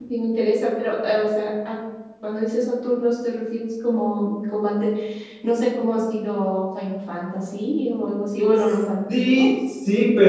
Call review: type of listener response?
taking over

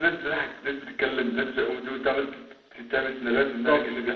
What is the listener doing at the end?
taking over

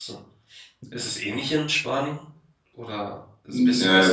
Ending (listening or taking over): taking over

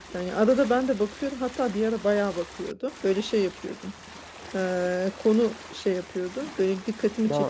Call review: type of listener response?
listening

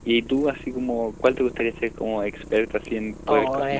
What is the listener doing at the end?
taking over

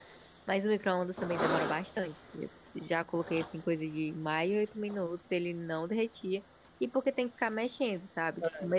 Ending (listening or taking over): listening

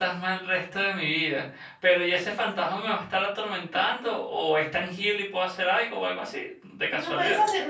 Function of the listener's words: taking over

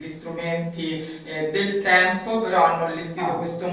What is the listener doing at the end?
listening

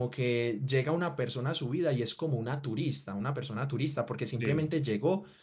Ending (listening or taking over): listening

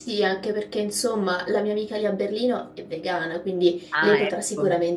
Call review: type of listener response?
listening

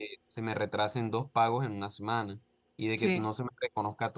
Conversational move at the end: listening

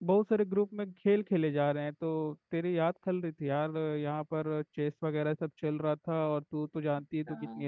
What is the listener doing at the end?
taking over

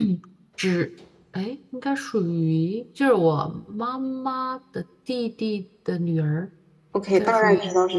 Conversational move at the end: taking over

